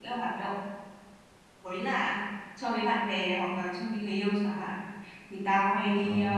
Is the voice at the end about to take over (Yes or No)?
No